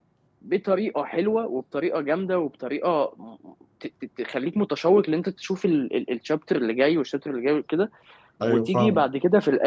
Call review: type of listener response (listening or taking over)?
listening